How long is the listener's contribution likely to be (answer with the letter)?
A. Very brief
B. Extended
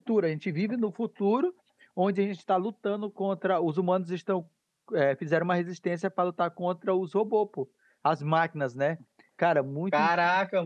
B